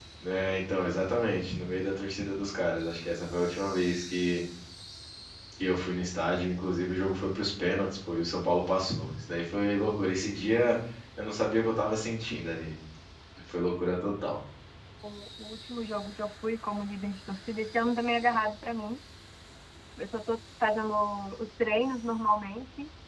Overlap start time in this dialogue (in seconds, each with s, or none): none